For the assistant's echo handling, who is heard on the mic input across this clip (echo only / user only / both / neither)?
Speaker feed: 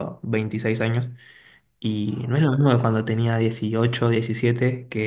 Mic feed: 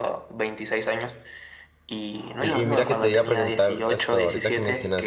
both